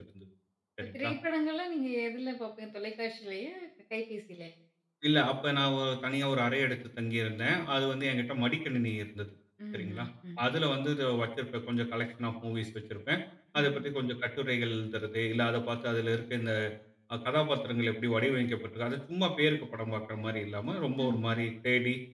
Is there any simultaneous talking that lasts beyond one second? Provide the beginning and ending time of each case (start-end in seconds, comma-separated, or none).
none